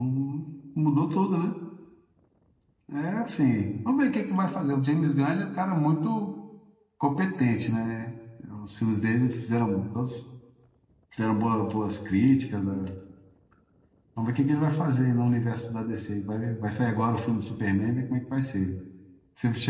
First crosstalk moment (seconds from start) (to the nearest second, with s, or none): none